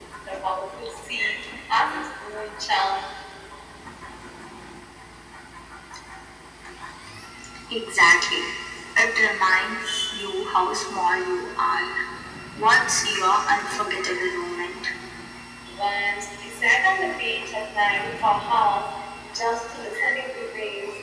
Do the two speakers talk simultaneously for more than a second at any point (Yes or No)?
No